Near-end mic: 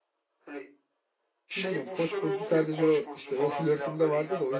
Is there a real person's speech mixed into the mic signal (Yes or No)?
Yes